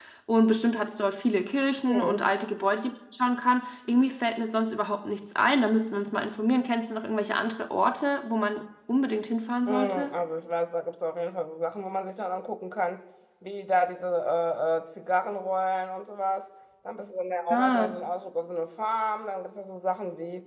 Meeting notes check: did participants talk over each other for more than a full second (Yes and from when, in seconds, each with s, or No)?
No